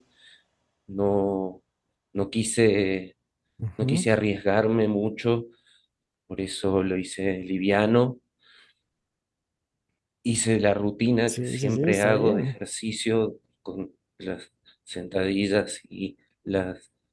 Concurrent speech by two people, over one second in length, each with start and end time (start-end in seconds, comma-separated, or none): 11.3-12.5